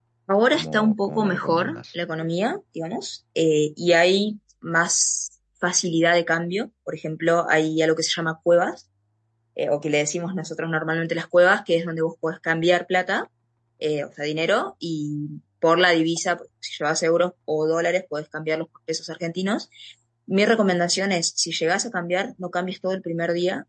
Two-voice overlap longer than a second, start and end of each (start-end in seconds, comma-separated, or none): 0.5-1.8